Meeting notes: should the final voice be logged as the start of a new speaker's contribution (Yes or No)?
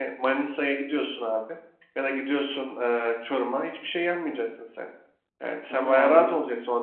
No